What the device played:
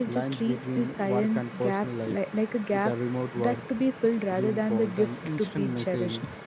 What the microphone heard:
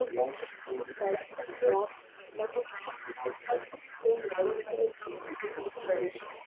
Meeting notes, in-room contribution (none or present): none